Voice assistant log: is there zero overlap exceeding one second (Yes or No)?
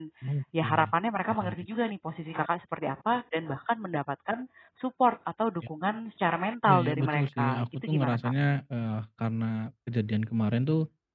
No